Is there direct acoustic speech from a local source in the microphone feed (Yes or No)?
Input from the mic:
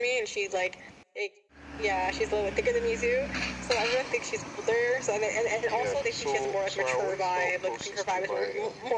No